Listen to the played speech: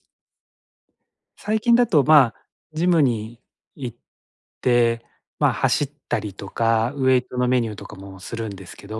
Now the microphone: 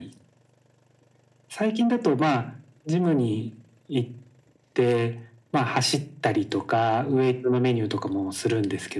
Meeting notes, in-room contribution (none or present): none